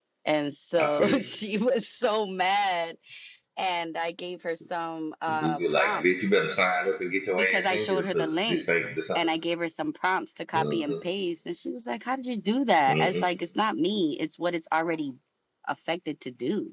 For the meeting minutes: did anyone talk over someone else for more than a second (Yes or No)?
Yes